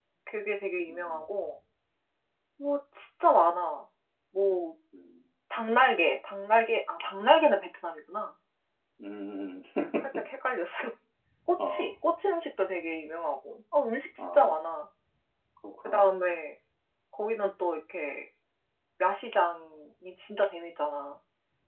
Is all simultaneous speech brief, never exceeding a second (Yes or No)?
Yes